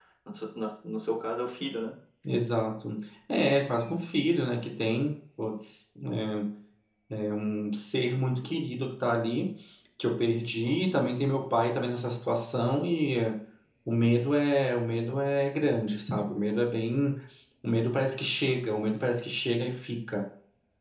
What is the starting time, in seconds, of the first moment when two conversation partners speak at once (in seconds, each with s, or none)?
none